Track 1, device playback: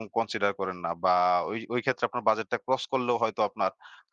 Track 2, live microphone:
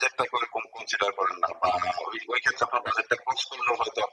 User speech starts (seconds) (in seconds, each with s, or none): none